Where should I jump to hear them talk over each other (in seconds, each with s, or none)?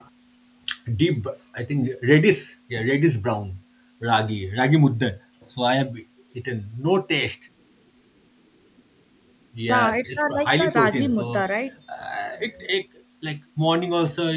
9.7 s